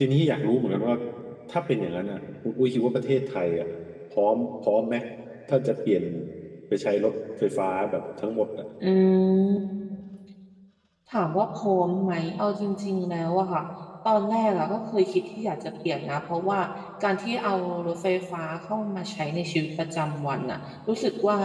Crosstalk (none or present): none